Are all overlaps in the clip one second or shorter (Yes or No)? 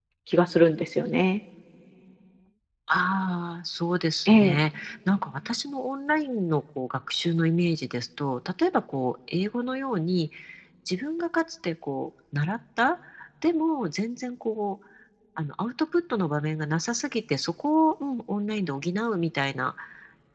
Yes